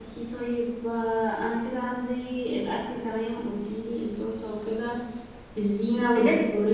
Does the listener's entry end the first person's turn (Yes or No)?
No